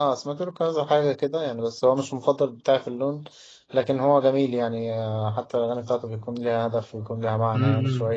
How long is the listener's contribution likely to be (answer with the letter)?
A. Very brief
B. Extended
B